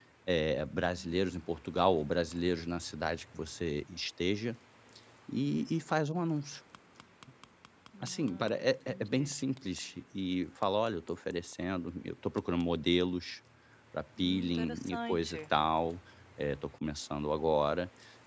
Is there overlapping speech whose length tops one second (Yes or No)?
Yes